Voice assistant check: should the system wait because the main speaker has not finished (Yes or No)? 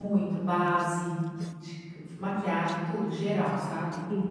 No